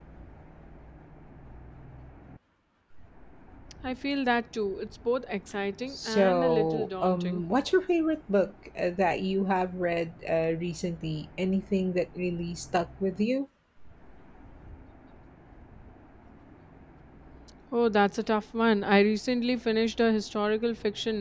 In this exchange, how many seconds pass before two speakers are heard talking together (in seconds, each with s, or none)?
5.9 s